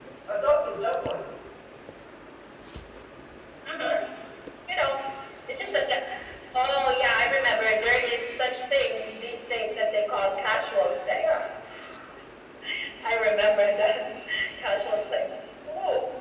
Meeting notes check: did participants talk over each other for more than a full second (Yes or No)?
No